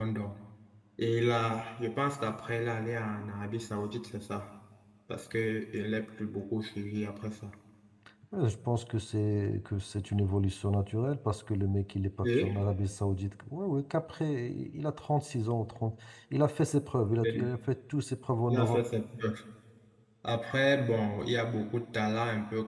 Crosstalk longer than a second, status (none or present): none